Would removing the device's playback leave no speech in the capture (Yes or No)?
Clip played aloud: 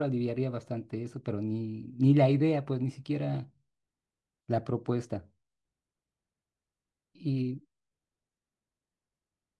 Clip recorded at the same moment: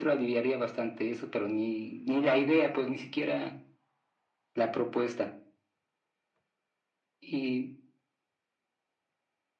Yes